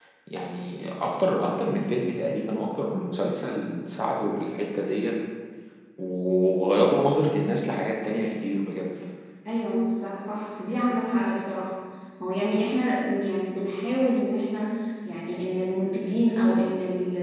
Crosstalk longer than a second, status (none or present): none